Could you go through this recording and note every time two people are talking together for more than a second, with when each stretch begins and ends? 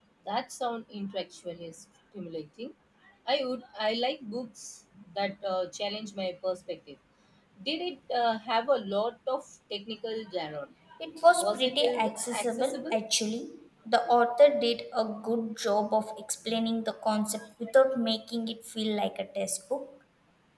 11.4-12.9

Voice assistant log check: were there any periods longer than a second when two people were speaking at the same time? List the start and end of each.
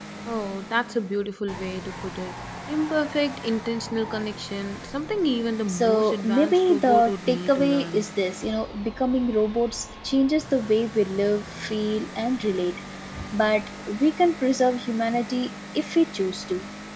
5.7-8.1

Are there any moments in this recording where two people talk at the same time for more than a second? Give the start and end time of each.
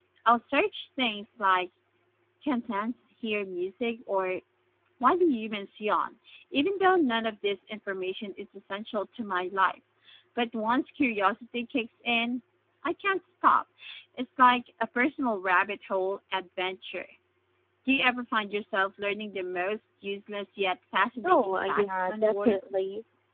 21.2-22.6

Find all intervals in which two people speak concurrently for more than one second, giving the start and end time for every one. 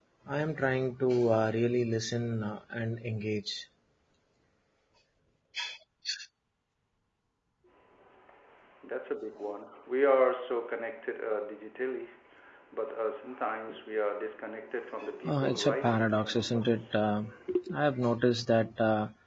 15.3-17.1

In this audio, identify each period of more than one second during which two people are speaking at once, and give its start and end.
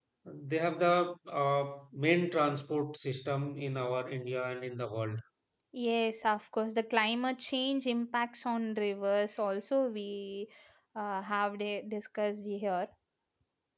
none

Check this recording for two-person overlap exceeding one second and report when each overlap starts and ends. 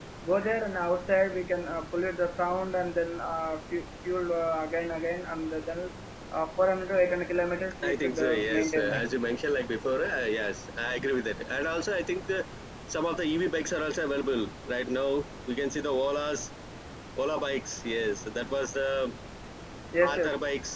7.8-9.1

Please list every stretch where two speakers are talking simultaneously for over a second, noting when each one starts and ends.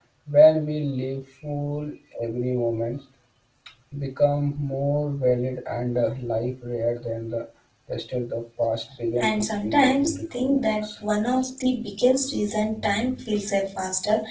9.2-10.9

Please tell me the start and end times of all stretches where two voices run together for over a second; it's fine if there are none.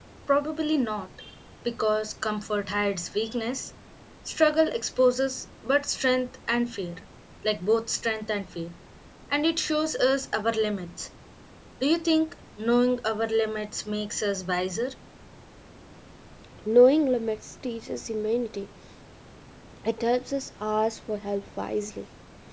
none

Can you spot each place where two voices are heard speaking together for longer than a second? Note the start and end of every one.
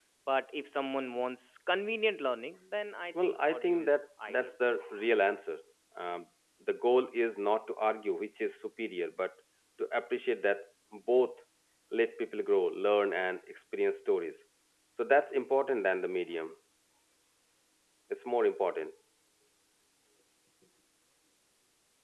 3.2-4.5

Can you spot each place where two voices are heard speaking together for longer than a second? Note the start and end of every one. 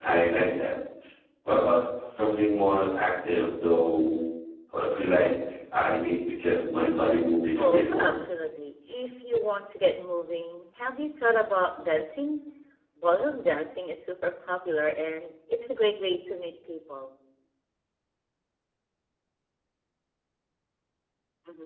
none

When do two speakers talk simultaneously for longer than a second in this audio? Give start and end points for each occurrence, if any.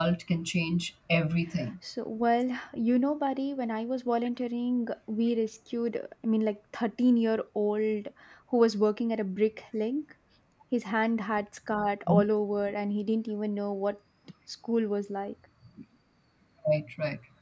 none

